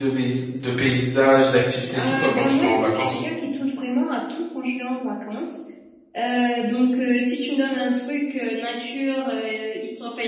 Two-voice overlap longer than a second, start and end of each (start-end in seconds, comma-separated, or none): 2.0-3.2